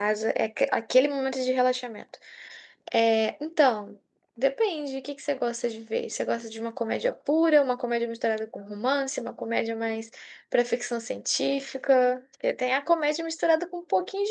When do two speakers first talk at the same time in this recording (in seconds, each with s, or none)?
none